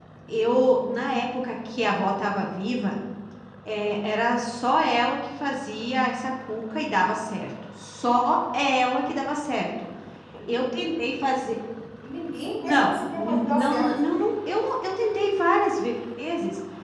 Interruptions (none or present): present